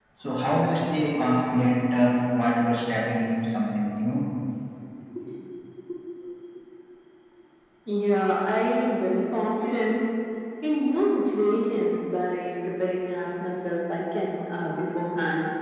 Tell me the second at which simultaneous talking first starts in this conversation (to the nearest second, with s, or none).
none